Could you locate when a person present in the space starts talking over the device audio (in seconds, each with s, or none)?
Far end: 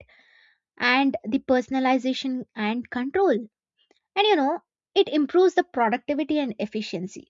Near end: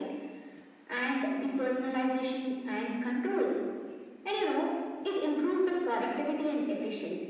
none